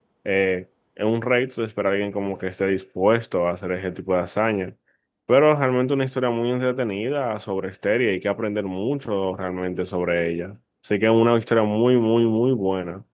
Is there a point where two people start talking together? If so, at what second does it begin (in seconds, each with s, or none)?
none